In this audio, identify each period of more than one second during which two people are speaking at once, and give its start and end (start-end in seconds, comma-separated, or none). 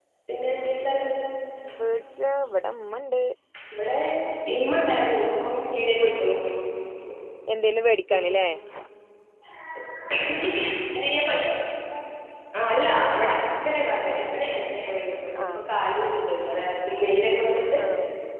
none